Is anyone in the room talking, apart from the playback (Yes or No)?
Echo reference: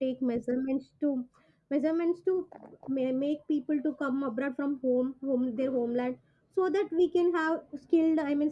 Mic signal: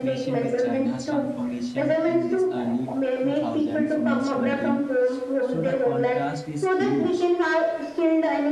Yes